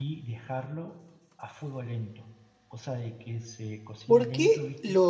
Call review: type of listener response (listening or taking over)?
taking over